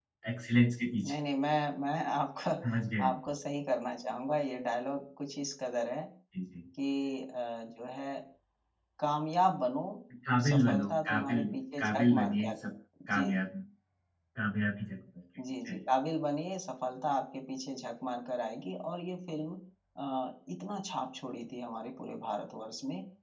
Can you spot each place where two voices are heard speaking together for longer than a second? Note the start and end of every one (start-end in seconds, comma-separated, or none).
10.5-12.5